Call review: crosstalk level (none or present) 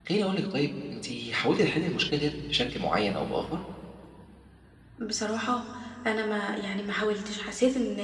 none